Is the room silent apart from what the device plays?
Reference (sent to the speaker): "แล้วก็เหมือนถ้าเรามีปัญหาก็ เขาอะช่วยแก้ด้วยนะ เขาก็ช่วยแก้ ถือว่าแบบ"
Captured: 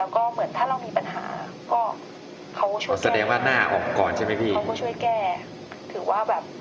No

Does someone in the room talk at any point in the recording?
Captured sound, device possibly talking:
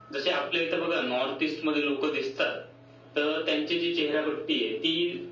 No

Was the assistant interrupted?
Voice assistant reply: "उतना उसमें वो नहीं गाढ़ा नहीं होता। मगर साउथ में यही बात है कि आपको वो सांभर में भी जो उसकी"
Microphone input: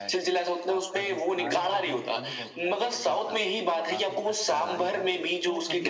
Yes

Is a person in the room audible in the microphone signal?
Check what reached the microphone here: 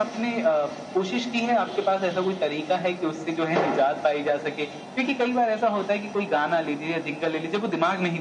No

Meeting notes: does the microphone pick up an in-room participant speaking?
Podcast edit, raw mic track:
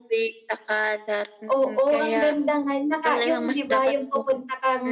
Yes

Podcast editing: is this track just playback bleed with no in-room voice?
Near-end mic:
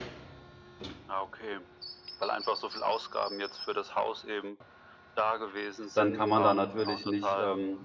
No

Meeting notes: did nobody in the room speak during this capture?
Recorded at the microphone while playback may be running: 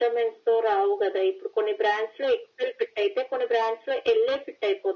Yes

